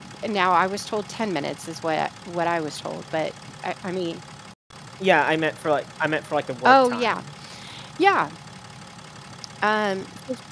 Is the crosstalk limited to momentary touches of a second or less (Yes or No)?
Yes